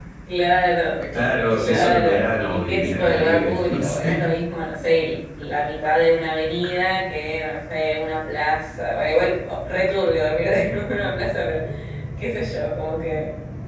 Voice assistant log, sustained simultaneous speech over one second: present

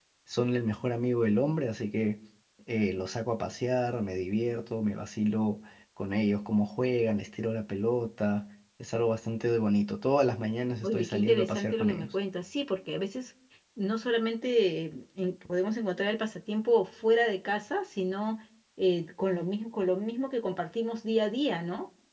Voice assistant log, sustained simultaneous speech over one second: present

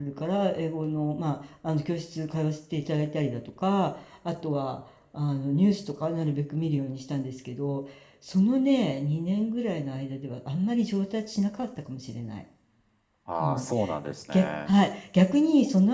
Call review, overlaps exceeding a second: none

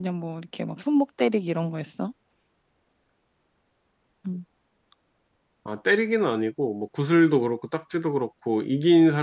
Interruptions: none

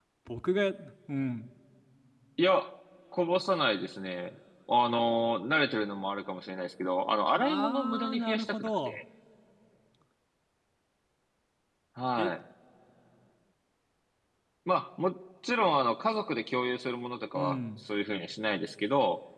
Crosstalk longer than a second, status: present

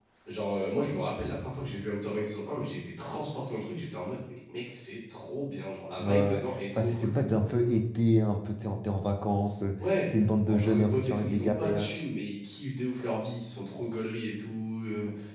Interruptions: present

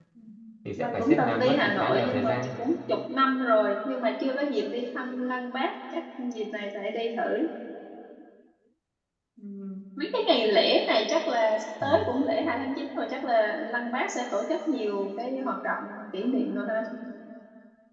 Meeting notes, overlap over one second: present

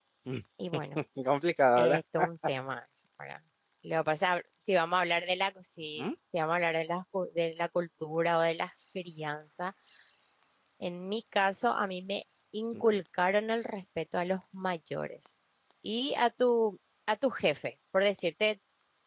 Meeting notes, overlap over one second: none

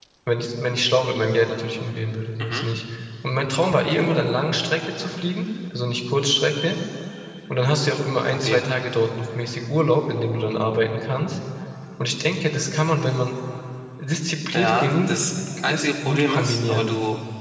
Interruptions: present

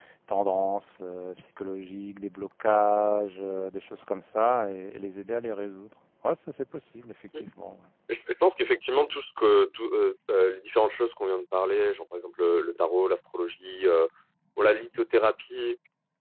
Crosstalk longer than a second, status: none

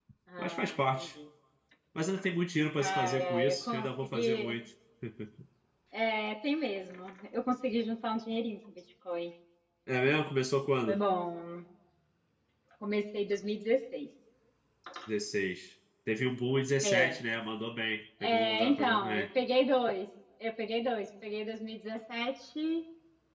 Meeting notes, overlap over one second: present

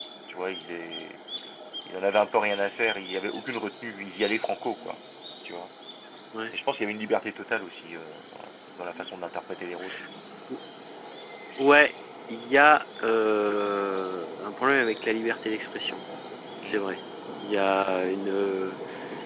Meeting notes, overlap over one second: none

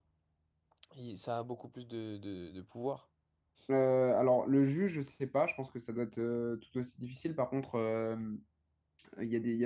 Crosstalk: none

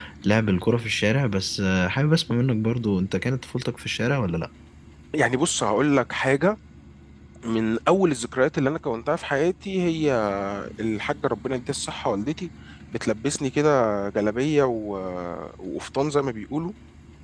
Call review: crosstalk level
none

